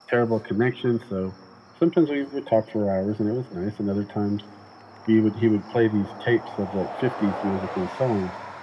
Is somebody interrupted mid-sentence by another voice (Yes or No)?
No